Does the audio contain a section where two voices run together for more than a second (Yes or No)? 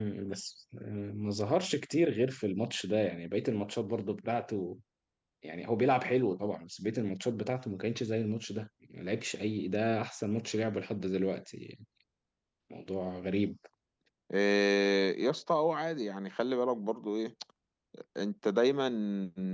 No